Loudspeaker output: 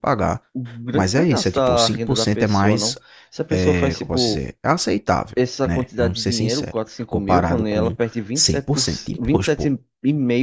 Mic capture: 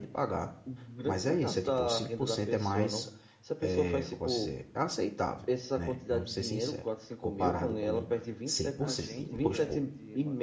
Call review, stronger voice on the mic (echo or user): echo